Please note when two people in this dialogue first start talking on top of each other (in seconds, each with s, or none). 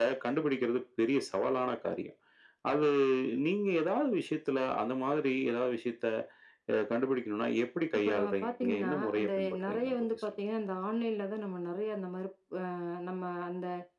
7.9 s